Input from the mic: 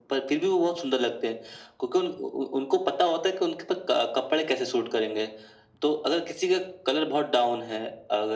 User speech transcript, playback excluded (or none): none